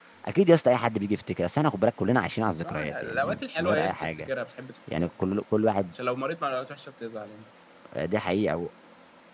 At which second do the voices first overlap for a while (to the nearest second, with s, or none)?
3 s